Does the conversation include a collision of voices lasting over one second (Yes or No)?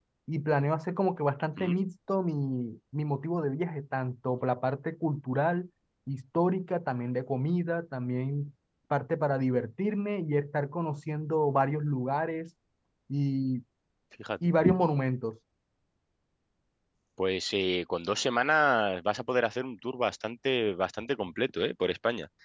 No